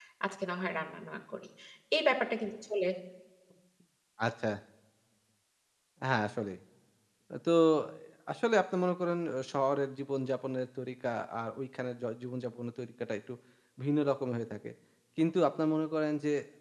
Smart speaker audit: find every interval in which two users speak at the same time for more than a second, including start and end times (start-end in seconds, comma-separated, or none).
none